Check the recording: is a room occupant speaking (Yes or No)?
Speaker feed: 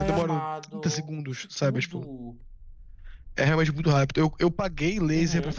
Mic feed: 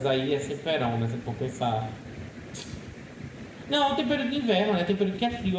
Yes